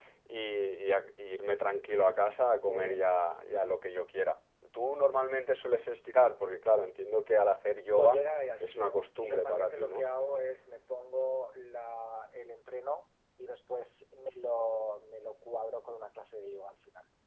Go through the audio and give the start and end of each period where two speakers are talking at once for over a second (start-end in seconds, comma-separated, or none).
8.6-10.0